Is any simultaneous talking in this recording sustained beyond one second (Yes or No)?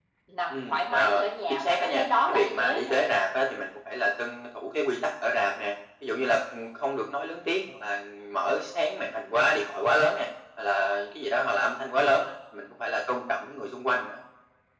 Yes